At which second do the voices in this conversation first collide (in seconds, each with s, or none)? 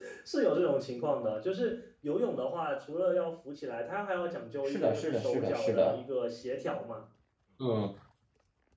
4.7 s